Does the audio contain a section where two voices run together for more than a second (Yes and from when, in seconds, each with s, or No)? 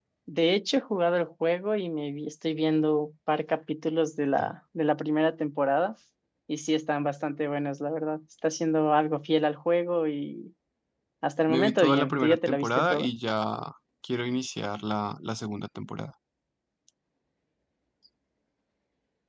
Yes, from 11.5 s